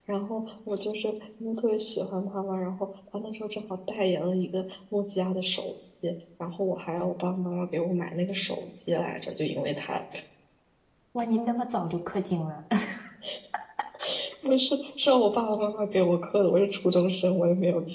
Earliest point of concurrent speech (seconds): none

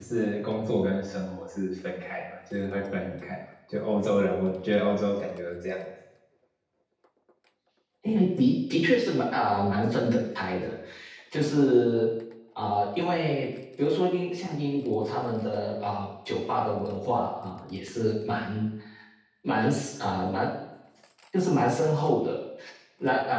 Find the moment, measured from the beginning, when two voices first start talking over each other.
none

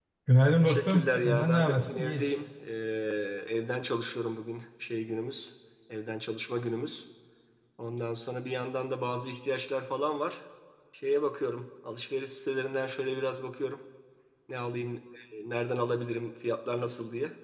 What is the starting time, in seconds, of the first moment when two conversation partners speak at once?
0.6 s

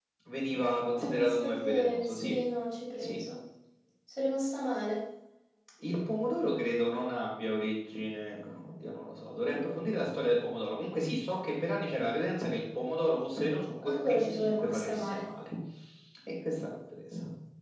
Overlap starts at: 1.0 s

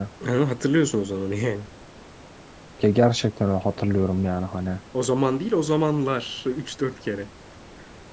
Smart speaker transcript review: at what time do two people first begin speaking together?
none

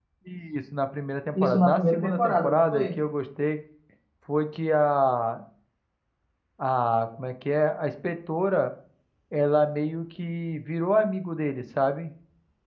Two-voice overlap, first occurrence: 1.4 s

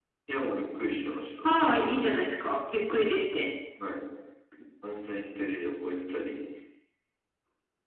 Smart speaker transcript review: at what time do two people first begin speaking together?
none

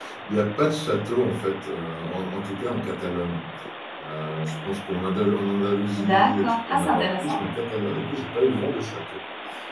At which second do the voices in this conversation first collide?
6.0 s

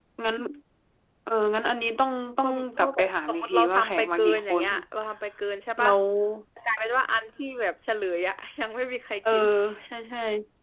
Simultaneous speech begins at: 2.4 s

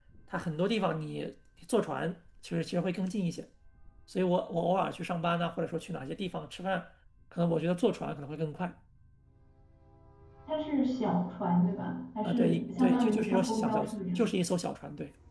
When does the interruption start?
12.2 s

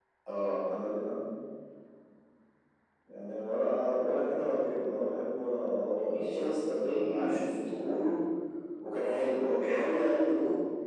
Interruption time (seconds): 5.9 s

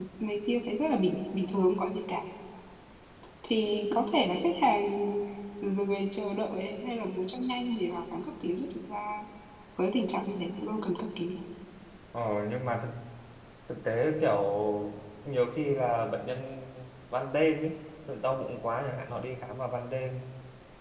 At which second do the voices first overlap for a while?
none

